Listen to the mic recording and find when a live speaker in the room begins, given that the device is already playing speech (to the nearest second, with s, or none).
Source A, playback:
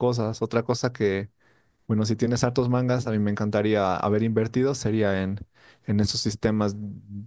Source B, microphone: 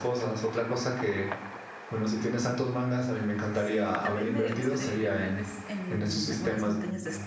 4 s